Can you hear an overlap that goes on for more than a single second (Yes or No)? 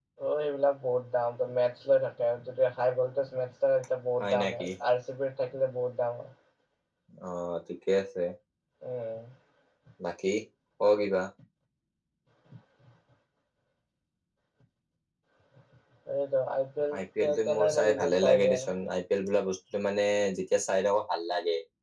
Yes